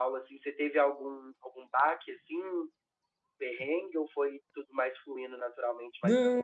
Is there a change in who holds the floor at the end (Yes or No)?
Yes